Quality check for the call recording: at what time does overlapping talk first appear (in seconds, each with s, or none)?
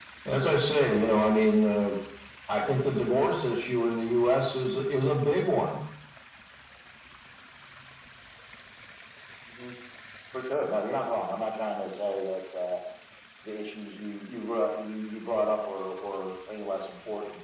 none